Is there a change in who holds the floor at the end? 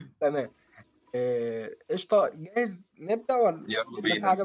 No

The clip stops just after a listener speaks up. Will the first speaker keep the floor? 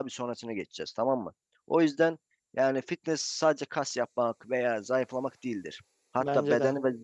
Yes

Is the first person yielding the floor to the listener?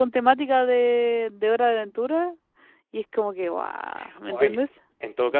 Yes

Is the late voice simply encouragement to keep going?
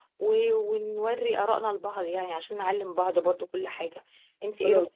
Yes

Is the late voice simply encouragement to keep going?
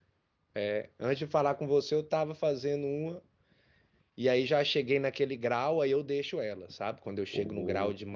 Yes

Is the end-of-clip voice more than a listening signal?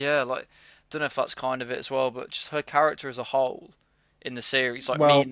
No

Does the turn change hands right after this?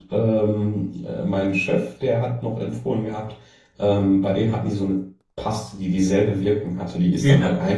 Yes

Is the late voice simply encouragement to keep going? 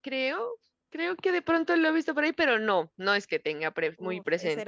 No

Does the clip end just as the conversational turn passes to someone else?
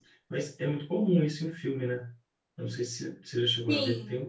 No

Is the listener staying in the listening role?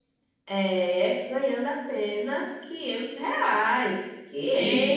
No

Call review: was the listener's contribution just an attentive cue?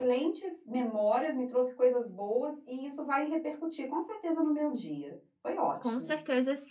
No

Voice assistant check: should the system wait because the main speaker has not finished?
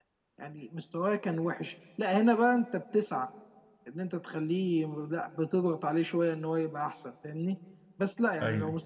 Yes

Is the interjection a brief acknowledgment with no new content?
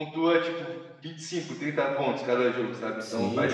No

